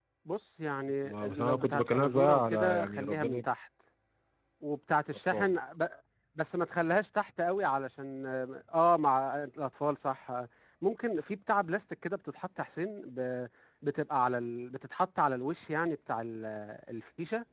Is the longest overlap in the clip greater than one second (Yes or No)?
Yes